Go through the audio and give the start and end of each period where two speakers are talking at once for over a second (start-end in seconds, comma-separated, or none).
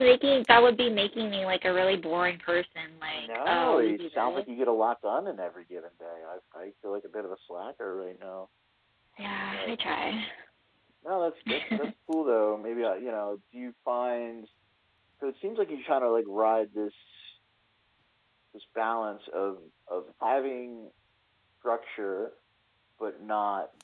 3.1-4.6